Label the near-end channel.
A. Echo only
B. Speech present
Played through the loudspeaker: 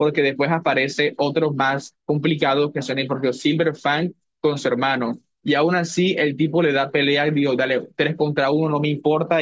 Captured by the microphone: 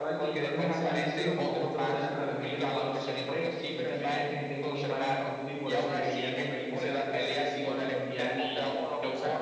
B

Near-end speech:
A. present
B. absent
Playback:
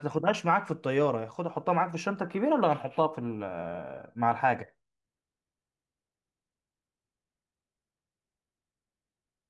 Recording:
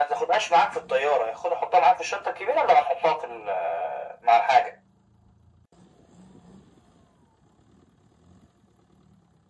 B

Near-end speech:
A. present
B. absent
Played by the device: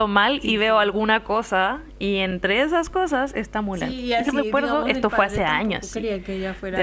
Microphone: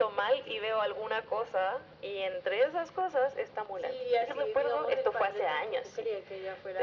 B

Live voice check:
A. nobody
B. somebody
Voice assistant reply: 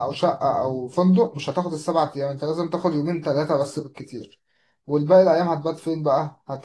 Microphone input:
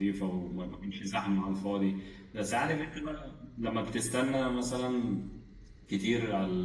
B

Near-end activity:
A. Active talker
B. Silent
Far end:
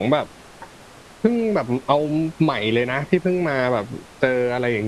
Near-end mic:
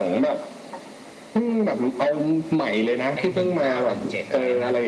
A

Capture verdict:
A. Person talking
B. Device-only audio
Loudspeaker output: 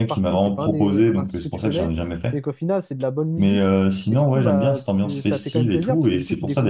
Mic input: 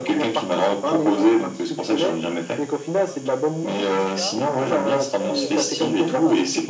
A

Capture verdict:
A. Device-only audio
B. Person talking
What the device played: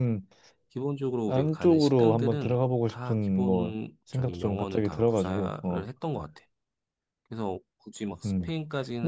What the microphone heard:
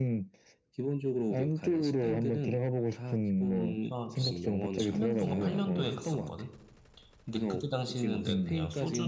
B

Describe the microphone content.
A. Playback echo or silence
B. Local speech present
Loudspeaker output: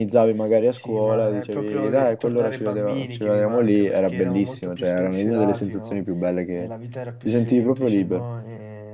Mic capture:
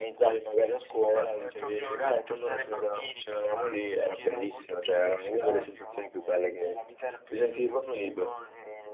A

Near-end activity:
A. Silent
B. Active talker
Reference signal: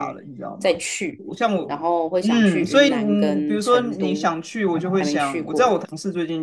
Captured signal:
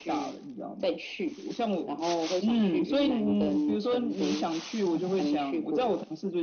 A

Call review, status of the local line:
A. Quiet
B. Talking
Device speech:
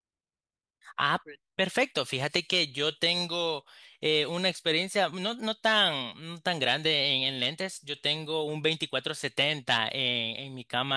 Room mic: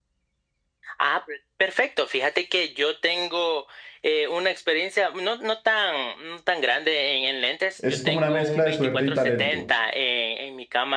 B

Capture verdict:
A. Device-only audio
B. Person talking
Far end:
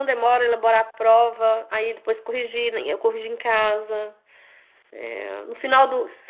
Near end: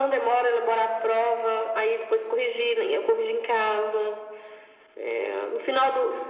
A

